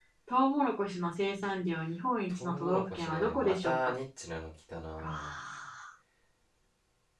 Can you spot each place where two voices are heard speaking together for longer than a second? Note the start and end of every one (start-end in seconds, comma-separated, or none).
2.3-3.9